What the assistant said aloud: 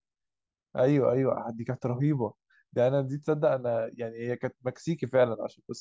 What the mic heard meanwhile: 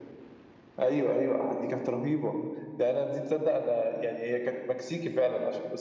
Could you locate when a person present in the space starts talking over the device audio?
none

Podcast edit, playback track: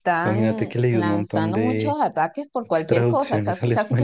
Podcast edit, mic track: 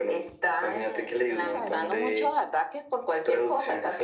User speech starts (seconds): 1.4 s

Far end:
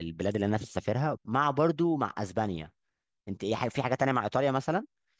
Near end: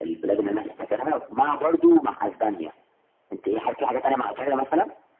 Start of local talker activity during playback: none

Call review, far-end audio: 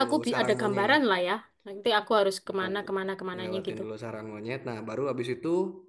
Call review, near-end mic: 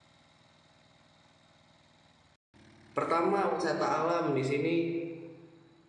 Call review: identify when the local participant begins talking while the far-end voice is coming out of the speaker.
3.0 s

